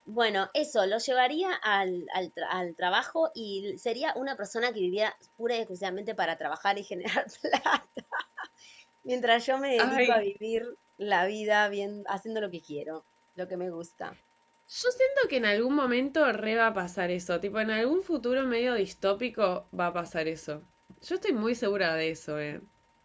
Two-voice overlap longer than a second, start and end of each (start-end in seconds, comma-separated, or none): none